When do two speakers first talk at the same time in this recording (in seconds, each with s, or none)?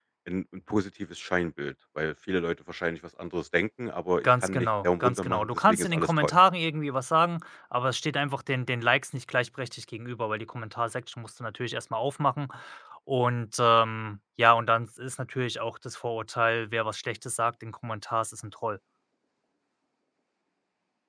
4.2 s